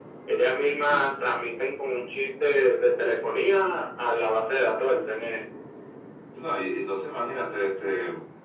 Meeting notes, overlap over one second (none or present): none